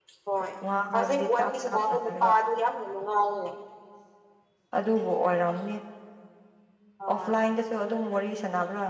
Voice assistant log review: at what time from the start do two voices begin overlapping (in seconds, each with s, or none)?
0.9 s